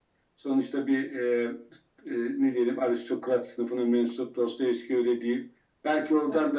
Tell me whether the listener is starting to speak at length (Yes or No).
No